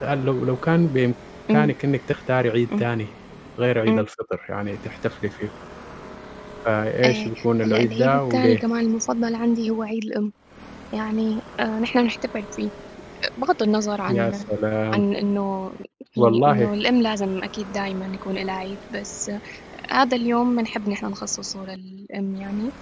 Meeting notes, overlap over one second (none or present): present